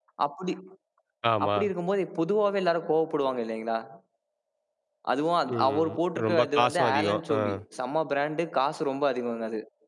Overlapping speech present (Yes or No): Yes